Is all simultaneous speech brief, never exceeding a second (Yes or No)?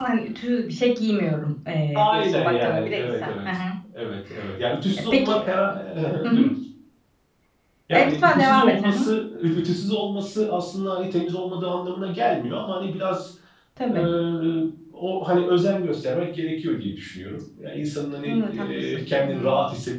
No